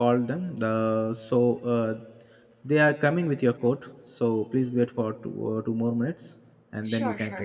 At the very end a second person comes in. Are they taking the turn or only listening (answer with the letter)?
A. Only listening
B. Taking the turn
B